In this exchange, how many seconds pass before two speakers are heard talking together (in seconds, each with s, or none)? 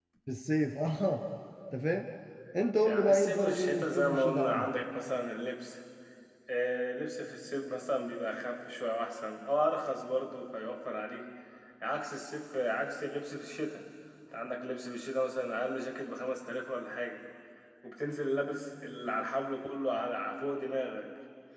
2.8 s